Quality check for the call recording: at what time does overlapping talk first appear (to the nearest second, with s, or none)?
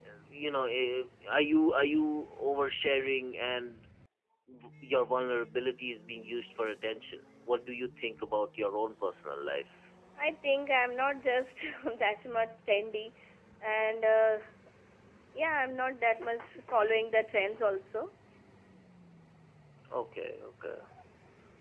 none